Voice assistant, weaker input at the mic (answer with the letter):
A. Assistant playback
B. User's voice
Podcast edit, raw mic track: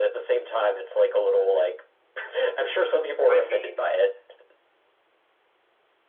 B